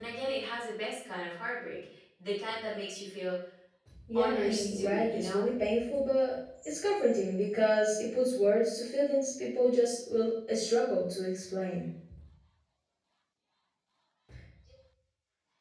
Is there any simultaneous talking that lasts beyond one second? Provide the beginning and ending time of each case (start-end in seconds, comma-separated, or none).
4.2-5.5